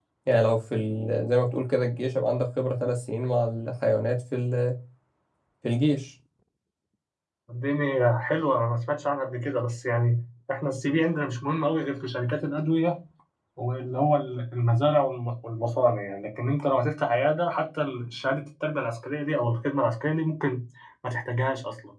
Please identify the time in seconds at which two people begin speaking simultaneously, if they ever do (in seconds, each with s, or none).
none